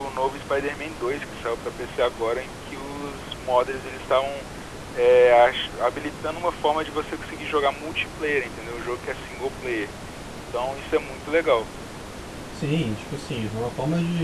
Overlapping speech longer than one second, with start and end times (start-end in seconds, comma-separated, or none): none